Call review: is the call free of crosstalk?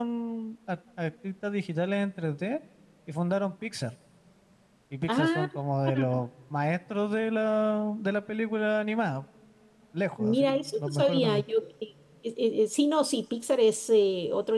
No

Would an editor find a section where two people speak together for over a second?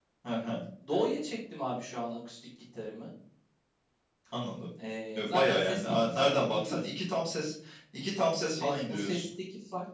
Yes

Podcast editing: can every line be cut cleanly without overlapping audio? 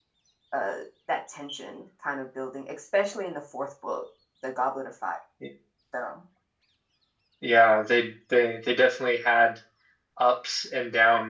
Yes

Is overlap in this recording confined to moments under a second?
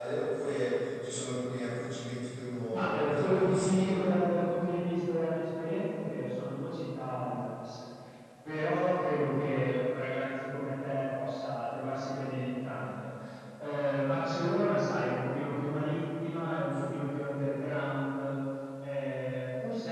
No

